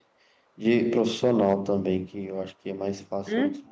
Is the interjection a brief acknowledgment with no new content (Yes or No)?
No